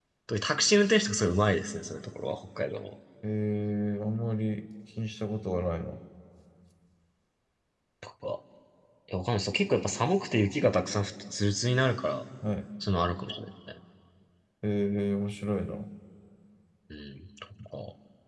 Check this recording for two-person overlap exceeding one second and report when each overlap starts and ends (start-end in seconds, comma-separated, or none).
none